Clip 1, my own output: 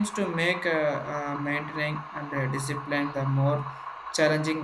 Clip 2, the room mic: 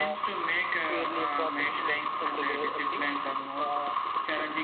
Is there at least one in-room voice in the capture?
Yes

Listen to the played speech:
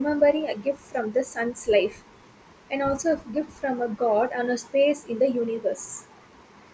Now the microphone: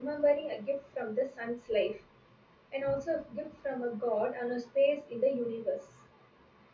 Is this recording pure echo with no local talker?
Yes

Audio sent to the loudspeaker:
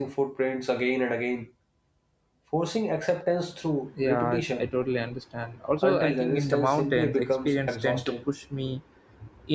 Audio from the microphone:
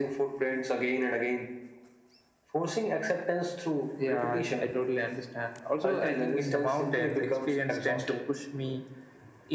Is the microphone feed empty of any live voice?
Yes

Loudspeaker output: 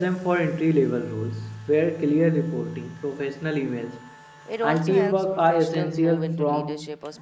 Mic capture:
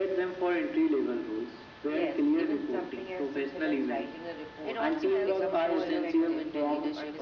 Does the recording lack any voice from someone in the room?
No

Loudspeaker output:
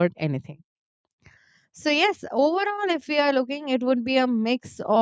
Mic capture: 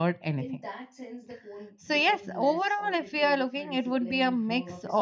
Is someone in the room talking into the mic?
Yes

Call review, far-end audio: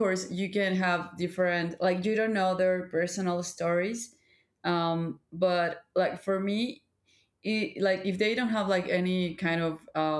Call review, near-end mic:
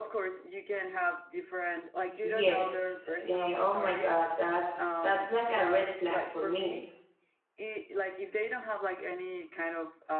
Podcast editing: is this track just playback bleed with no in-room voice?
No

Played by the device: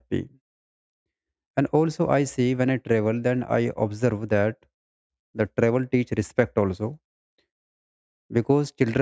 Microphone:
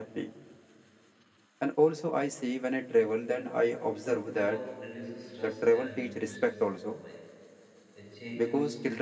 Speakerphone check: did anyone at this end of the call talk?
Yes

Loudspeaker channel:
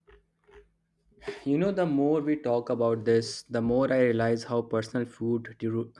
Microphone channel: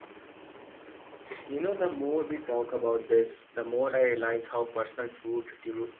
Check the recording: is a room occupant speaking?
No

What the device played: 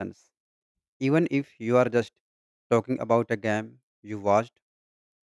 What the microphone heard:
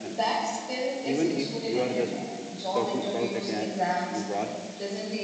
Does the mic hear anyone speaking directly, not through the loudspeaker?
Yes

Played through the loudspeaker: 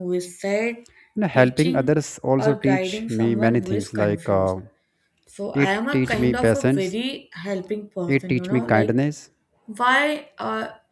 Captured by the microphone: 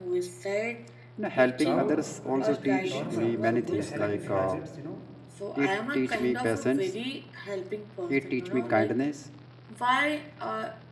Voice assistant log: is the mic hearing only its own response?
No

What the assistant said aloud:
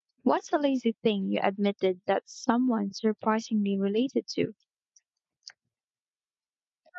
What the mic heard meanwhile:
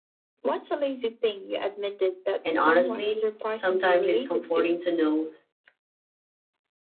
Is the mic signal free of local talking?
No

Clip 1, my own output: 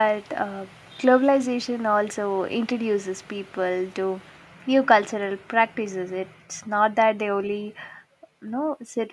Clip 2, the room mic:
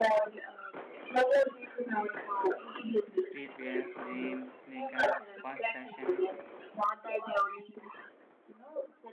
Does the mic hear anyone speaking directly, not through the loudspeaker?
Yes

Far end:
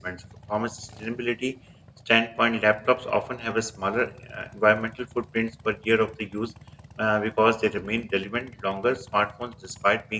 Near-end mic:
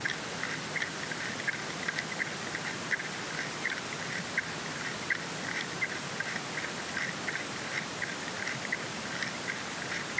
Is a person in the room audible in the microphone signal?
No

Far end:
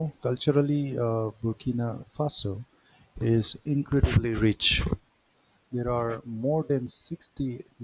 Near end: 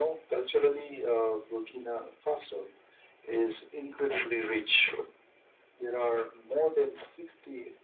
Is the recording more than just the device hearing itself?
No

